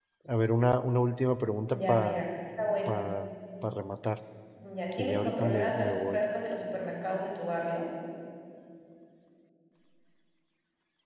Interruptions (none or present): present